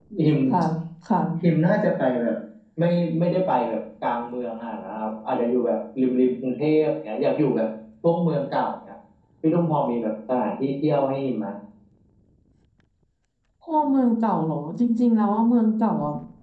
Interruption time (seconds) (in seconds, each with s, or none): none